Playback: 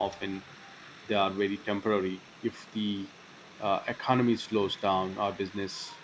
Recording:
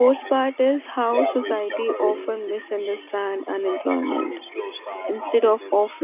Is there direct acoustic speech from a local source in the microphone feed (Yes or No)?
Yes